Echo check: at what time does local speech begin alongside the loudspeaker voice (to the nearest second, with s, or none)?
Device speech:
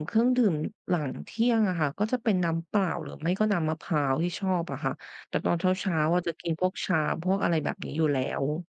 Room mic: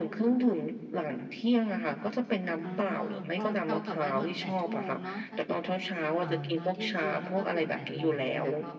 3 s